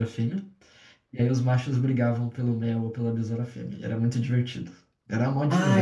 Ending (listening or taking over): taking over